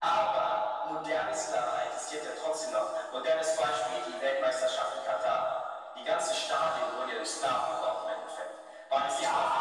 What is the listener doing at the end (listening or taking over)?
taking over